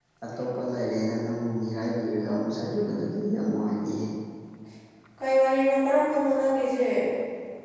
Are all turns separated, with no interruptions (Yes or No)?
Yes